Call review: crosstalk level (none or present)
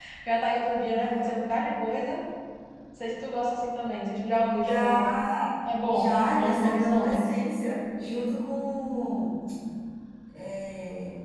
present